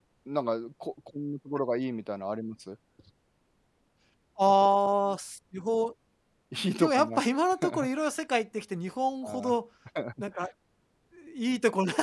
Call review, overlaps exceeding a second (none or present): none